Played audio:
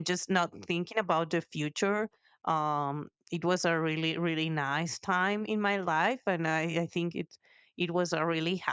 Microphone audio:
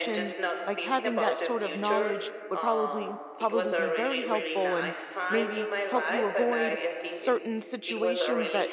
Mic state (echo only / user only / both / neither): both